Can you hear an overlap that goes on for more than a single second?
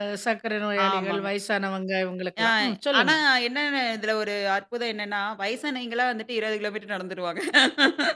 No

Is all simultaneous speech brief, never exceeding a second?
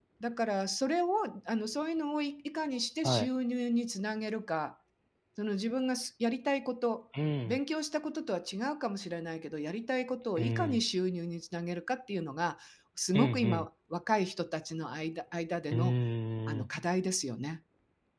Yes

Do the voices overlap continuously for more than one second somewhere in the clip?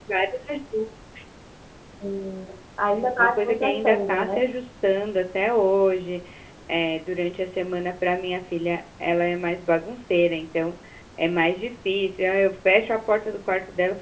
Yes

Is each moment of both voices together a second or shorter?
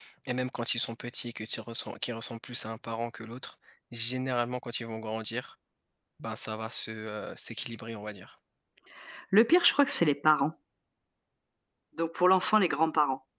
Yes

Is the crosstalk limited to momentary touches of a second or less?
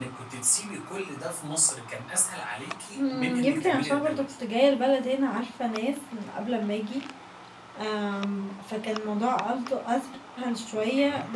No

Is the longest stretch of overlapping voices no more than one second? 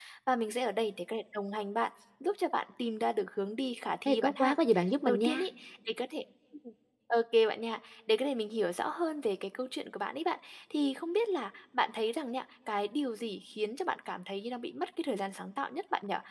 Yes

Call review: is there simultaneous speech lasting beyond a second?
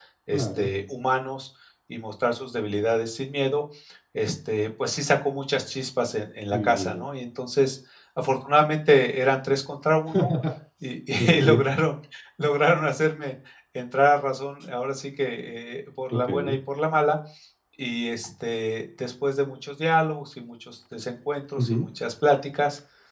No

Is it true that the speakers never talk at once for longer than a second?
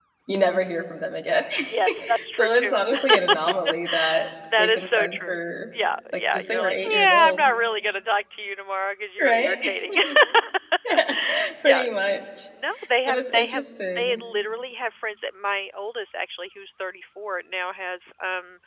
No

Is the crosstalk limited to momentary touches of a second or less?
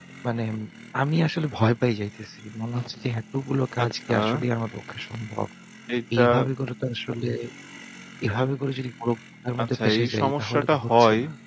No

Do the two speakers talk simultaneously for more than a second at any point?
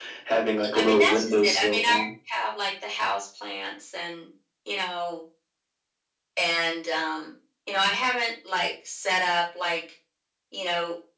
Yes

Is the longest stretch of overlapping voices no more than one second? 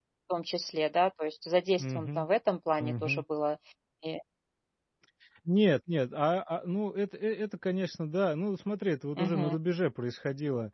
Yes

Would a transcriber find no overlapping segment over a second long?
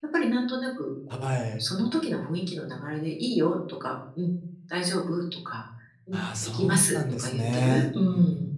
No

